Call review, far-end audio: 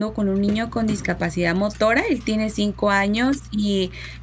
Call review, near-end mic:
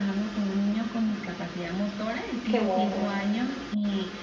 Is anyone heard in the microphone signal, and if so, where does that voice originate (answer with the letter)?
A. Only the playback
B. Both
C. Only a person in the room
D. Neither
B